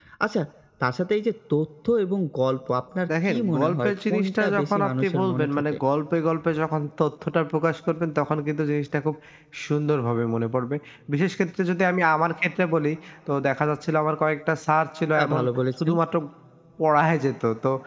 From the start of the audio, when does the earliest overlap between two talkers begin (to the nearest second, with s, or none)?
3 s